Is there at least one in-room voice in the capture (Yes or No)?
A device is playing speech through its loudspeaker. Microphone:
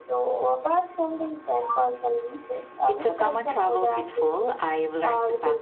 No